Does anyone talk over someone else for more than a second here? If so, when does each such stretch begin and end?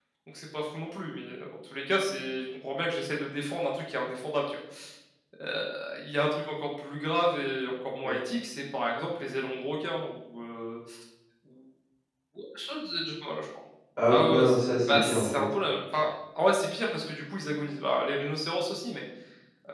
14.1-15.5

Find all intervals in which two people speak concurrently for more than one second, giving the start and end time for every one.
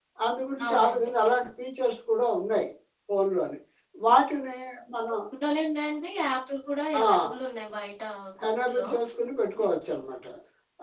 none

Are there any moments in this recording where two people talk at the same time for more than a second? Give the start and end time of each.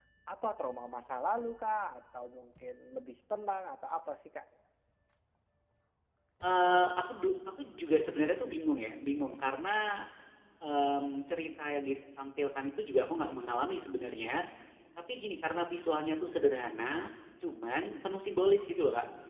none

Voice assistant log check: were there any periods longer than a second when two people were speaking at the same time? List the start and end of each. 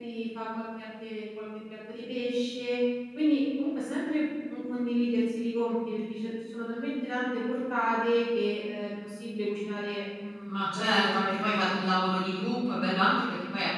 10.5-11.7

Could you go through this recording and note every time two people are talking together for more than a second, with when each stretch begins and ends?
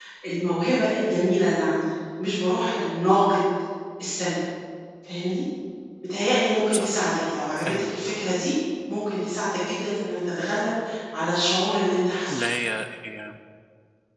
none

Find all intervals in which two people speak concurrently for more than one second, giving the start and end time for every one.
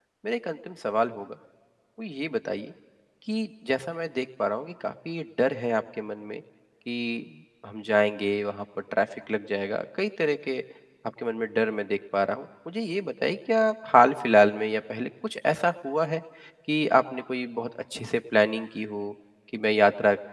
none

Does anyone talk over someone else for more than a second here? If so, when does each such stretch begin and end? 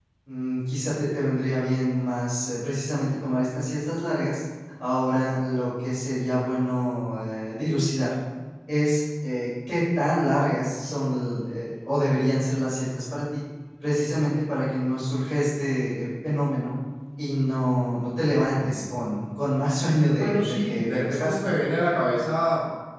20.1-21.7

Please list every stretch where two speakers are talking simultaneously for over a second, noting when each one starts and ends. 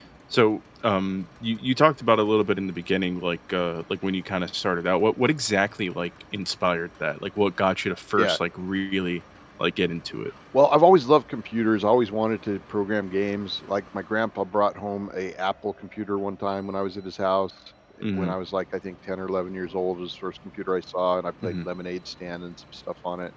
none

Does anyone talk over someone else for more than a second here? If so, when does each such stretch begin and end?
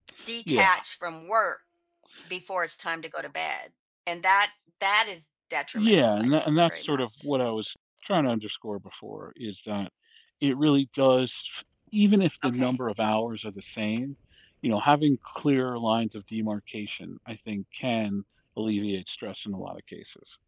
5.8-7.3

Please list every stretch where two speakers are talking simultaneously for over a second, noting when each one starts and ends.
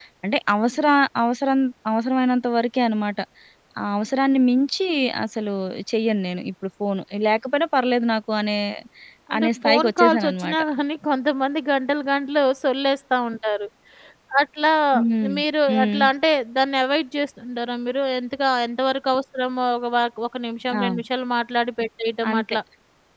9.4-10.6

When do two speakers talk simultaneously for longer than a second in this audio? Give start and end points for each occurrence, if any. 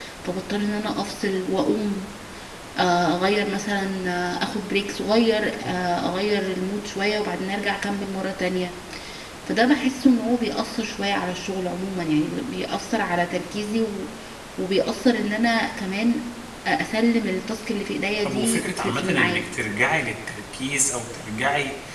18.2-19.5

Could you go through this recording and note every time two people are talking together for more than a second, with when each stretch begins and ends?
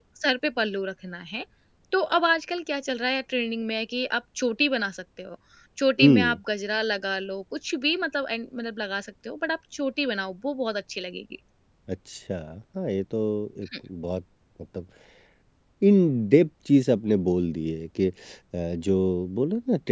none

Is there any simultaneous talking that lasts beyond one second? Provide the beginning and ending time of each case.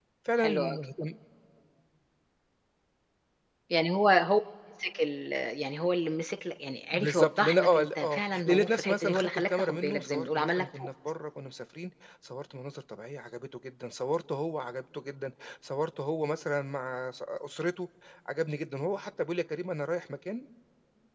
6.9-10.9

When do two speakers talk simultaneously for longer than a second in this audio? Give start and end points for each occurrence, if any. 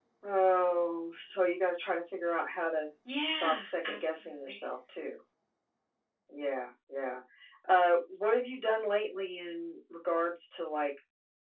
3.2-4.6

